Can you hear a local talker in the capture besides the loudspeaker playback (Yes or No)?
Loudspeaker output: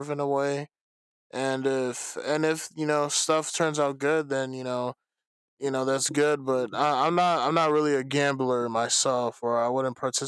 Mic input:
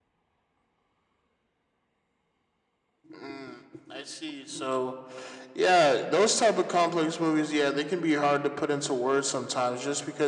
Yes